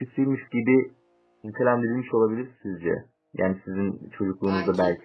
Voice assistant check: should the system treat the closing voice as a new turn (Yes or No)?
No